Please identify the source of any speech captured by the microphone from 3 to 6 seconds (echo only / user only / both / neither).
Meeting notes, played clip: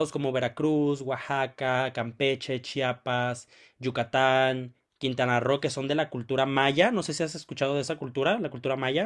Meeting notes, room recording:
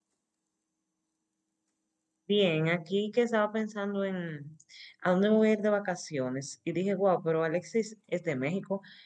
user only